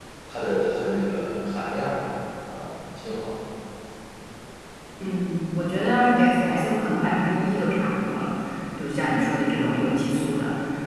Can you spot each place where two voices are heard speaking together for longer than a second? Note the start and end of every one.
none

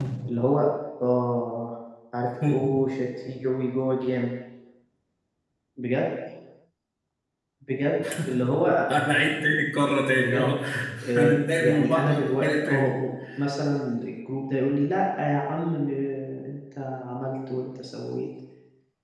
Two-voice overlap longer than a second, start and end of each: 11.2-12.9

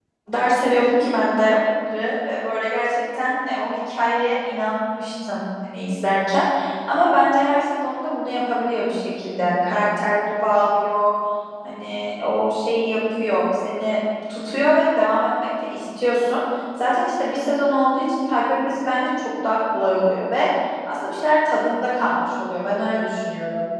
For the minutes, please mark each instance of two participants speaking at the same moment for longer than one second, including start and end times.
none

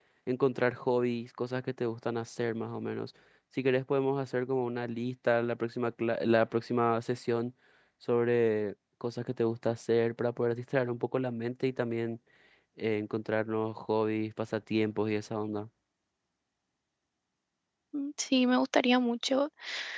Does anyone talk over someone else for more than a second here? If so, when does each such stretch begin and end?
none

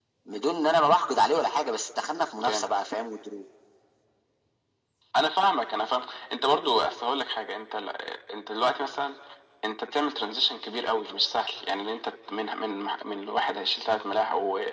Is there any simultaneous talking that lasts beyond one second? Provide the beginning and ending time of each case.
none

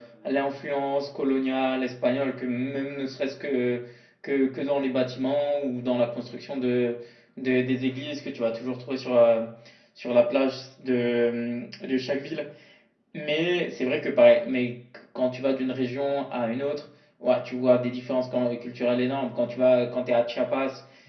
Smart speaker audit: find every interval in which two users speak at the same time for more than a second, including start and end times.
none

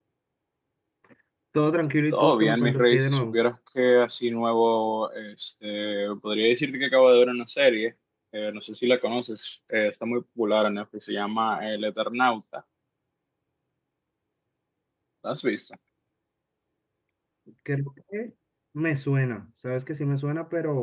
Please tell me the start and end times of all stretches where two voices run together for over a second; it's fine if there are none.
2.1-3.4

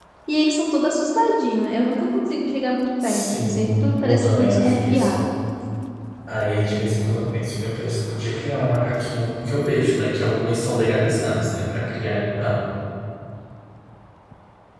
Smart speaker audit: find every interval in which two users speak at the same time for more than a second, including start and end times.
3.0-5.2

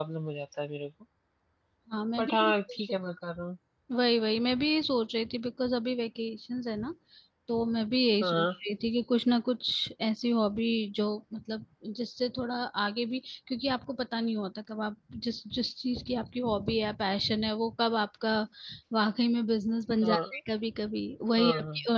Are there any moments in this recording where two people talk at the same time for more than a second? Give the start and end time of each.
none

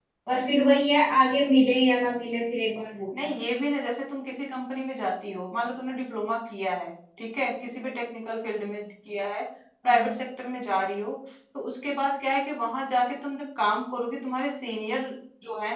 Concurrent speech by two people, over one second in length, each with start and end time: none

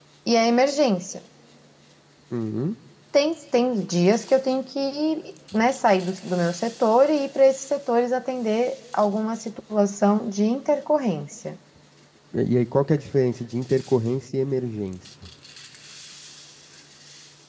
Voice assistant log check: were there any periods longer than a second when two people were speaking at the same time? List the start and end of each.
none

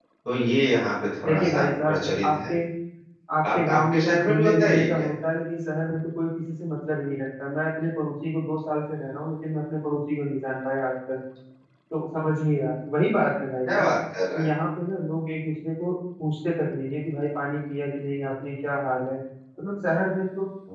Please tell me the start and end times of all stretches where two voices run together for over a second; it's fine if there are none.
1.2-2.5, 3.6-5.0

